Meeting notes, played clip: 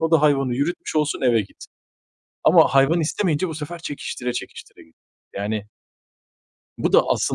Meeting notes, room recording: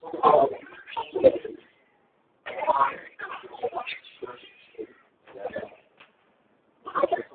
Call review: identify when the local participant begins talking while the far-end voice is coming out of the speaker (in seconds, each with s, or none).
none